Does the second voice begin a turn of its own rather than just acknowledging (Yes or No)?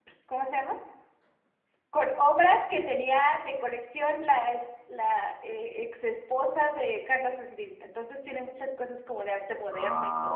Yes